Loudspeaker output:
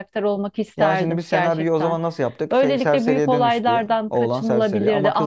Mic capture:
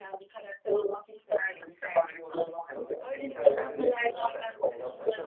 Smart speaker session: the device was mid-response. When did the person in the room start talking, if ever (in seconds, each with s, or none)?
2.7 s